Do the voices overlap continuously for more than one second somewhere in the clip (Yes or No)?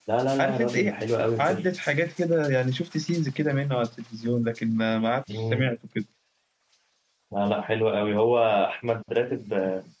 No